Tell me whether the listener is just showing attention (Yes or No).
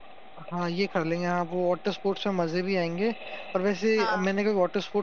Yes